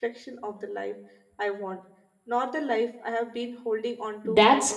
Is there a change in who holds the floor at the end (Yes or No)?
Yes